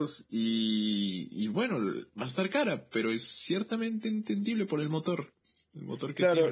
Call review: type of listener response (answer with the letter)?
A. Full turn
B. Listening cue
A